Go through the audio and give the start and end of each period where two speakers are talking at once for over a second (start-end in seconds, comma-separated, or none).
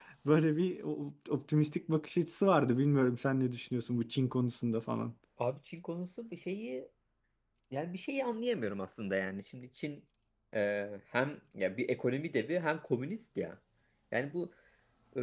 none